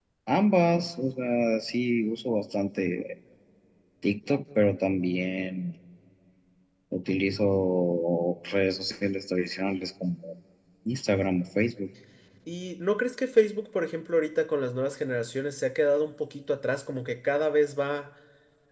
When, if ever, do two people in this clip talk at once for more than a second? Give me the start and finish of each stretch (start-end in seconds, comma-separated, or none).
none